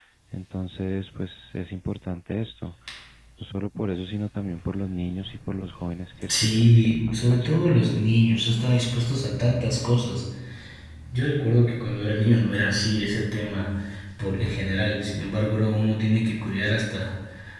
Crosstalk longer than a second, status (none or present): present